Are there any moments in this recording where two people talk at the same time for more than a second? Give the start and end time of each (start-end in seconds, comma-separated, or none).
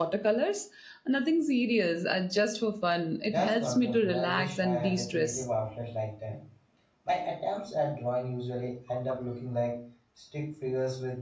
3.3-5.4